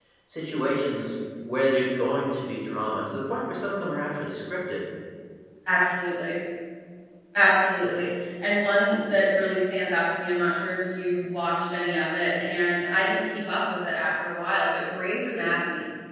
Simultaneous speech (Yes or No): No